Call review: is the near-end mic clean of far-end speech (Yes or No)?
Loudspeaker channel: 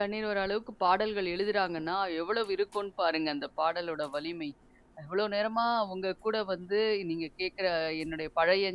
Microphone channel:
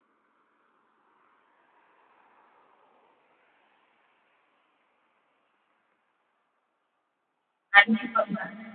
Yes